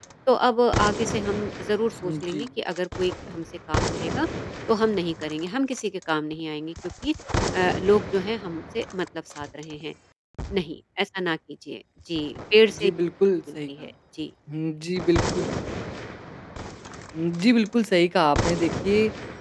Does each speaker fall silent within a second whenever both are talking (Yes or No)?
Yes